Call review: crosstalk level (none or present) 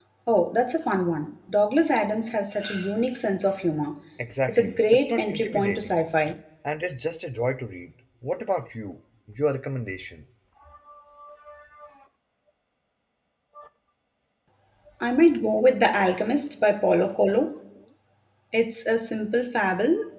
present